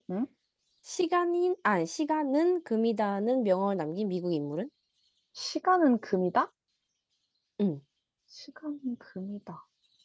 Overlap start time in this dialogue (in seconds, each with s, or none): none